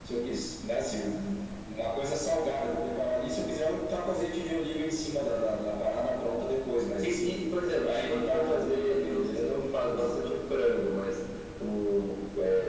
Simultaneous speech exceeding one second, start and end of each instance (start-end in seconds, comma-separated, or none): 7.8-10.1